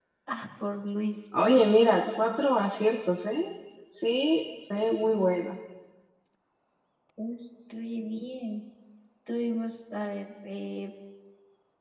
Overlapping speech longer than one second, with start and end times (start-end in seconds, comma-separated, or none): none